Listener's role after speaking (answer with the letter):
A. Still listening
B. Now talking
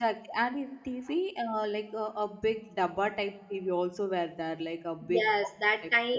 B